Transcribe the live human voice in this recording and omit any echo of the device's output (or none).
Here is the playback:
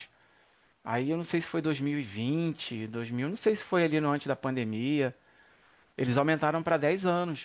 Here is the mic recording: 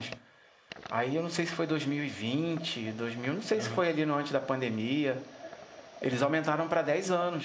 aham,